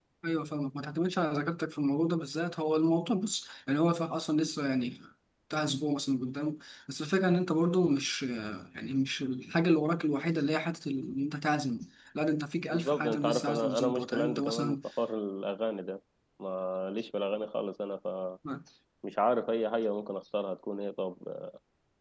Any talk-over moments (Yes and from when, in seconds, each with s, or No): Yes, from 12.7 s